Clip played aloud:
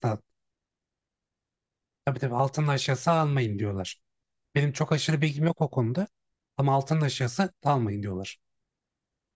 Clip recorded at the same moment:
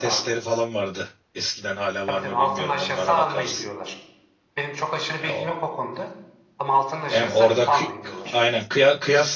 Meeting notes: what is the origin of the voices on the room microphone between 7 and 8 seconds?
both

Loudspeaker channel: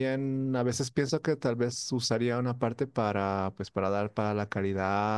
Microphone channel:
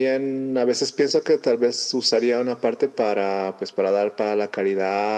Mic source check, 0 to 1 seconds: echo only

